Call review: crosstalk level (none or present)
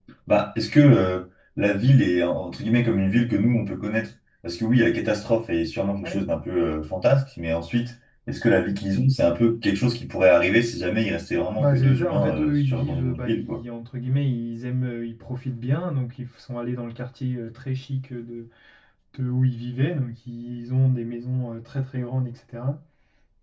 present